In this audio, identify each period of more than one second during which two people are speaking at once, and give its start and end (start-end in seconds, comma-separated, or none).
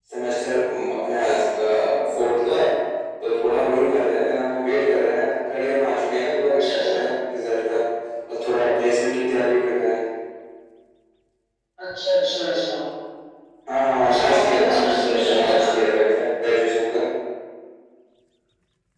14.0-15.6